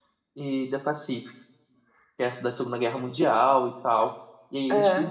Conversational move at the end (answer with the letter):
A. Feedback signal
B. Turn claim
A